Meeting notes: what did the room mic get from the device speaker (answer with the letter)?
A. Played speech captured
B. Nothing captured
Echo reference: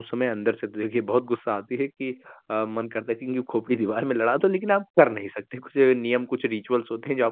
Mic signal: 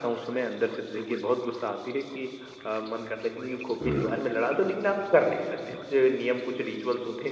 A